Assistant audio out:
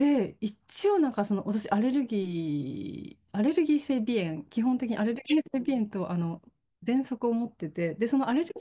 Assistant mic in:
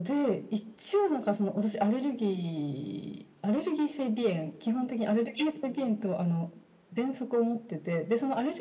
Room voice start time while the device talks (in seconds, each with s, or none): none